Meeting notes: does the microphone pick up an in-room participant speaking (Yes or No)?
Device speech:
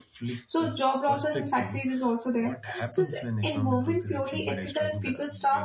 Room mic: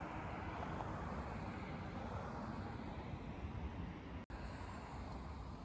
No